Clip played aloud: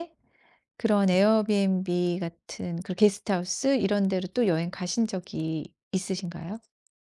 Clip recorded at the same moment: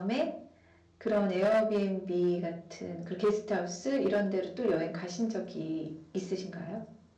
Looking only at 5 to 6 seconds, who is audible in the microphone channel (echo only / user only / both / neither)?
echo only